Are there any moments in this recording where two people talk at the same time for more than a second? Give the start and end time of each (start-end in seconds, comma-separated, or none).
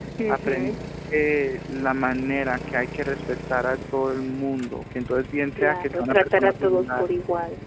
5.6-7.0